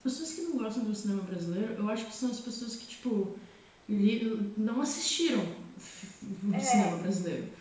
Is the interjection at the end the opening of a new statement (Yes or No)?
No